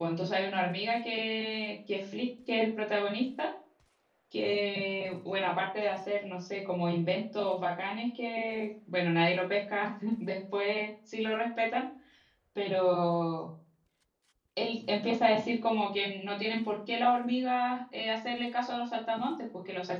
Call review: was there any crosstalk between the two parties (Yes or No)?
No